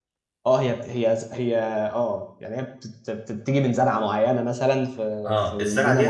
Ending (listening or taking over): taking over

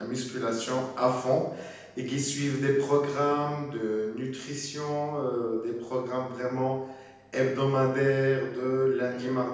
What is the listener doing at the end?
listening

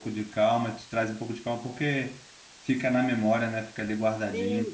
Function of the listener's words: taking over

